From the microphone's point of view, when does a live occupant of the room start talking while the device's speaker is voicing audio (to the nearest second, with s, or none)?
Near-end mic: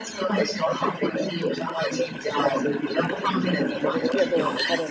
4 s